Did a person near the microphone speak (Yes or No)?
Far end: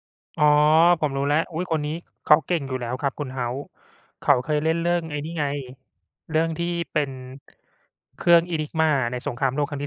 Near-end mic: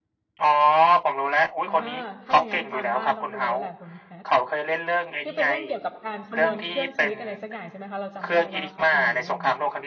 Yes